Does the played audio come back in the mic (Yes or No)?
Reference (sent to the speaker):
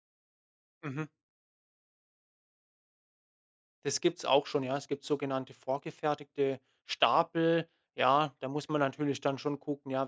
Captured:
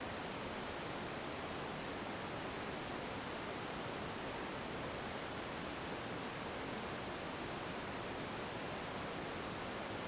No